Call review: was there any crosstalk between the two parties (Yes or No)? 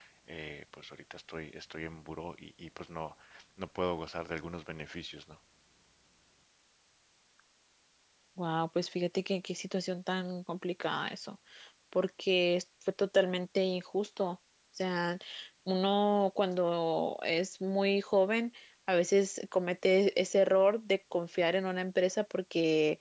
No